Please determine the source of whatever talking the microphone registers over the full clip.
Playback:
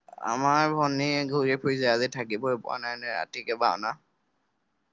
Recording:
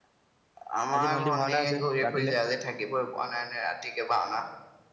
both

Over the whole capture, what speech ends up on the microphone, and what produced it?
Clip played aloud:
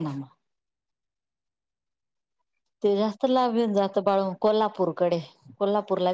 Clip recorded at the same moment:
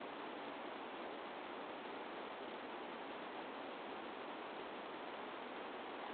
neither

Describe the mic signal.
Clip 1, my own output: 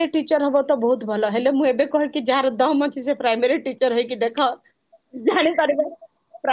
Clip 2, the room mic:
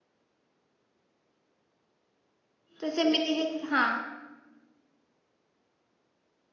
user only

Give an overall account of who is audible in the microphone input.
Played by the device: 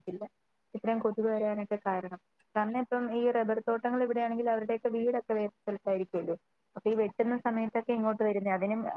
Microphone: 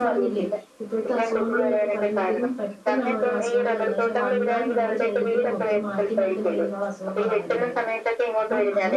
both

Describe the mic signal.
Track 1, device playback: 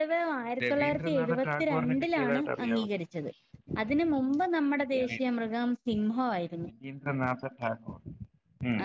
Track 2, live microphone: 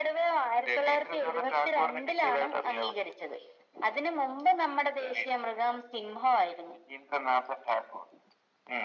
echo only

